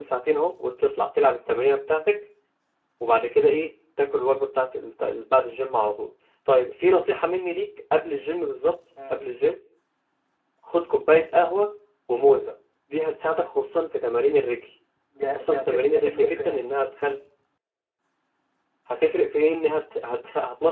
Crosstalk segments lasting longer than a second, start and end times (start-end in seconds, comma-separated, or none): 15.3-16.6